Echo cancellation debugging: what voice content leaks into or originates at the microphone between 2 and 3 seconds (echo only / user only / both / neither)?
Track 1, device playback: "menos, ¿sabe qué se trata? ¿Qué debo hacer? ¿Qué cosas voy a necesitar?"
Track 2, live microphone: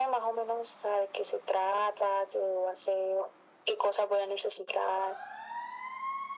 echo only